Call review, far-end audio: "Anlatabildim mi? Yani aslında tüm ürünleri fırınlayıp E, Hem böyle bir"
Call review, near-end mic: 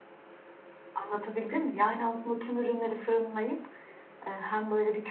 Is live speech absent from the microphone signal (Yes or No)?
Yes